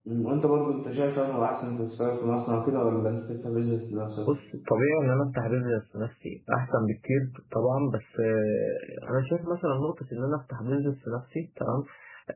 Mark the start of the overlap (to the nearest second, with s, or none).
none